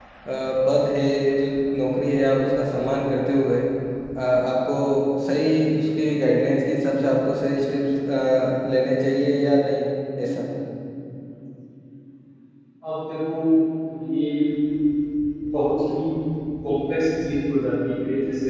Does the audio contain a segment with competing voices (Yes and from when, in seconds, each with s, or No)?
No